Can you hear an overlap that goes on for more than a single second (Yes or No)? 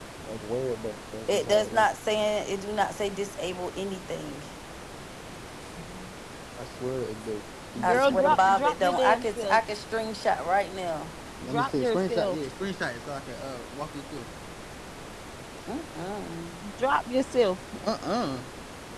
Yes